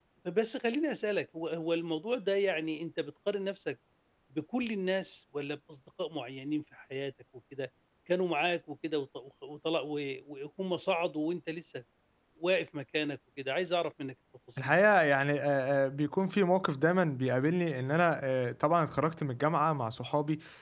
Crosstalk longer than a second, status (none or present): none